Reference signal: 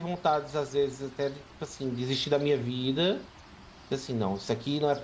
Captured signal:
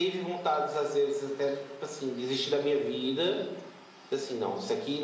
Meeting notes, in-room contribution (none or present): none